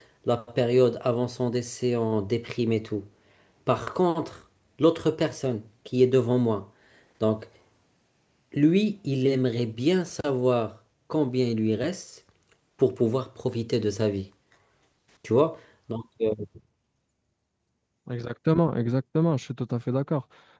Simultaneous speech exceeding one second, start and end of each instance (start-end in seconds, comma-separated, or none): none